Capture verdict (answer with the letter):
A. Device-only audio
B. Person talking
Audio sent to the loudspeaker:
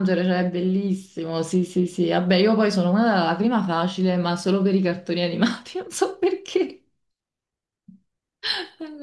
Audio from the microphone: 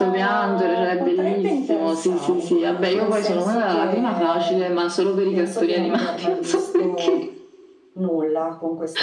B